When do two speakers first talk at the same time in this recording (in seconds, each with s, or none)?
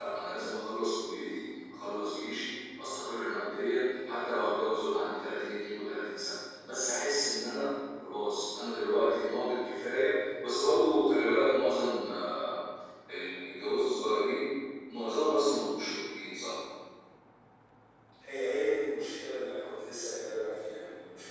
none